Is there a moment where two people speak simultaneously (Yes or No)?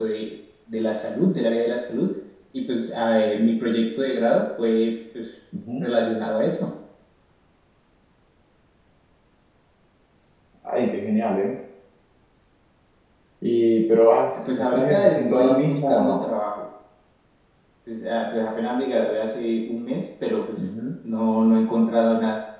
Yes